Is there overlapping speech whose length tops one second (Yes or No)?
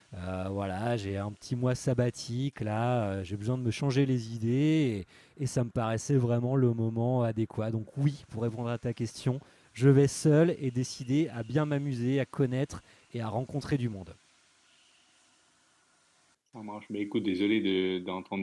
No